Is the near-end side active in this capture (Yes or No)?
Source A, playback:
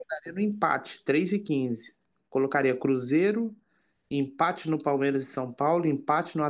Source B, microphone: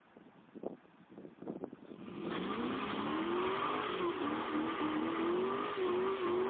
No